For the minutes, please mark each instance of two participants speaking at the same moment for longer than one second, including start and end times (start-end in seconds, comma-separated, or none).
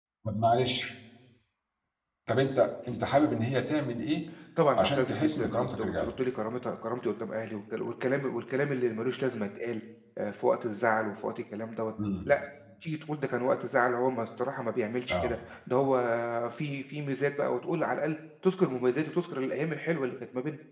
4.8-6.1